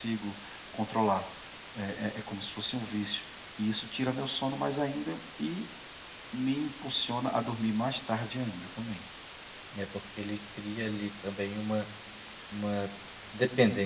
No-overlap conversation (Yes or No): Yes